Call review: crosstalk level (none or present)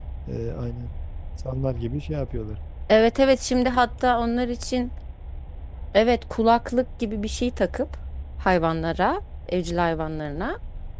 none